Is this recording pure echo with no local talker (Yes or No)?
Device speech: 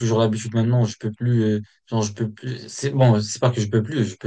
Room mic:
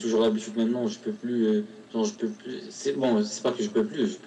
Yes